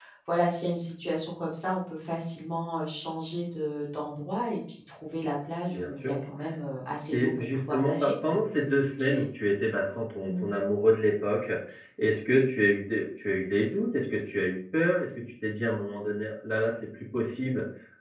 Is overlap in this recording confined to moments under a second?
No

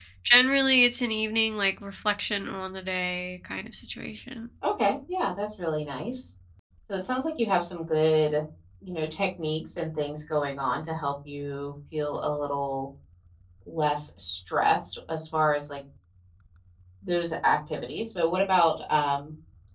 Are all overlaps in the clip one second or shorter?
Yes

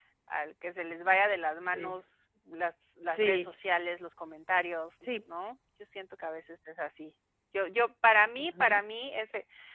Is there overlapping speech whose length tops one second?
No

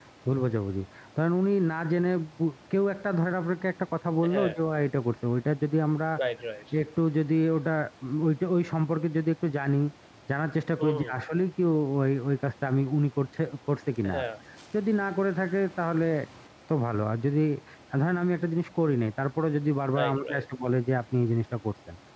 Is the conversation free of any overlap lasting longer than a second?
Yes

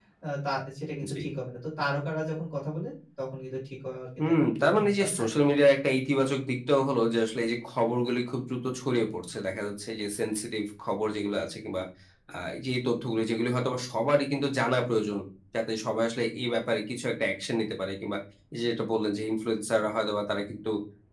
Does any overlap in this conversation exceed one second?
Yes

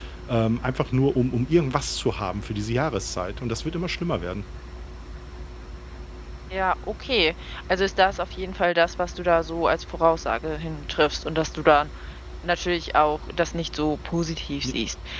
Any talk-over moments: No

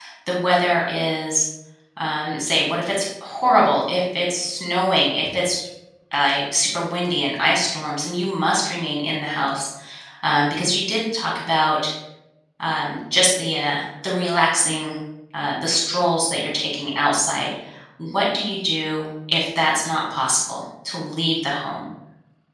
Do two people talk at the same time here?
No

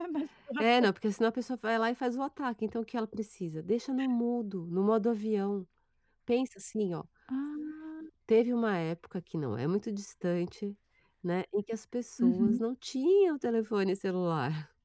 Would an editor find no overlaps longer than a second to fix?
Yes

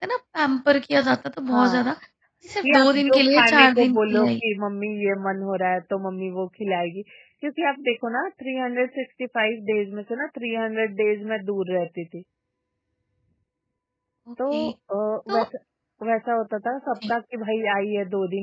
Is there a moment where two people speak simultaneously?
Yes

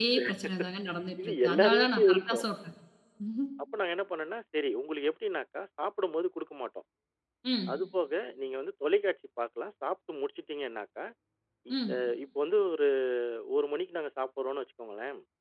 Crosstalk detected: Yes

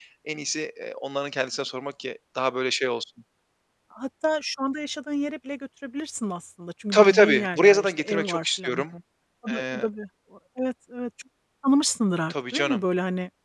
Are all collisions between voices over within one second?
No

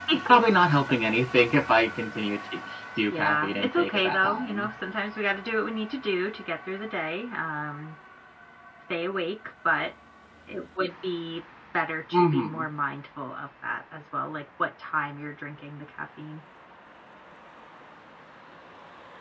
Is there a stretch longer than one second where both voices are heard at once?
Yes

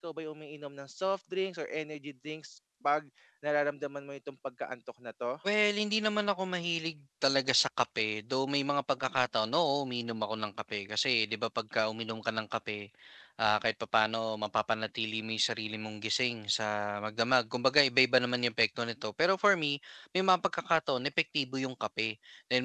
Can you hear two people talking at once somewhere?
No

